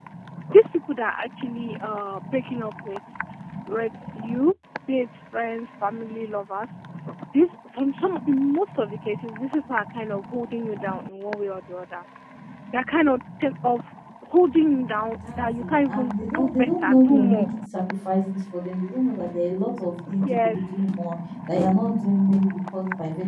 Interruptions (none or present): present